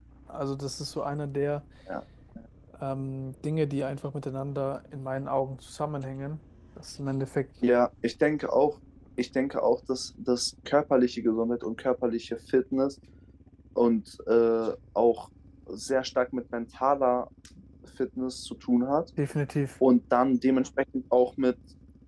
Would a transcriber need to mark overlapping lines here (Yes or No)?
No